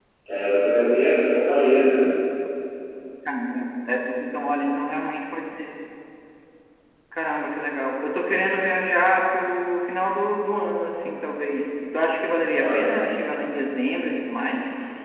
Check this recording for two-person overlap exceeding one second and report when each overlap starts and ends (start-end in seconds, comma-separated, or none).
none